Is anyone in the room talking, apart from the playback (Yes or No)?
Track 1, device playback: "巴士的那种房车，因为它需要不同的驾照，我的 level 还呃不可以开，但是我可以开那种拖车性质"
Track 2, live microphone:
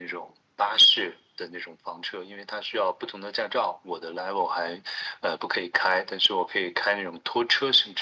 No